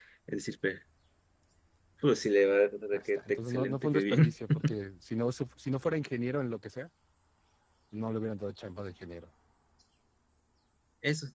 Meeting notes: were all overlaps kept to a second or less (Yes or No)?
No